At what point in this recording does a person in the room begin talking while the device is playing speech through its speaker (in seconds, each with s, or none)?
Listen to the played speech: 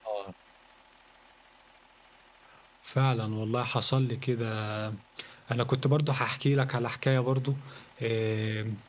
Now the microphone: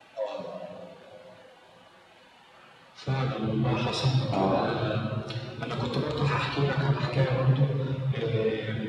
4.3 s